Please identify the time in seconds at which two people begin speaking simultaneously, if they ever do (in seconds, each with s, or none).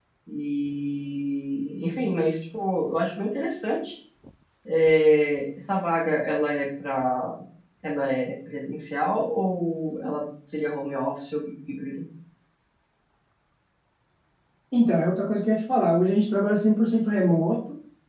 none